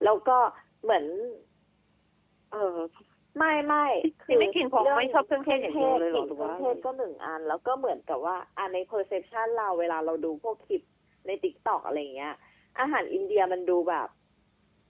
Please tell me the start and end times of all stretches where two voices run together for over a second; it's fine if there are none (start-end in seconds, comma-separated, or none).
4.8-6.7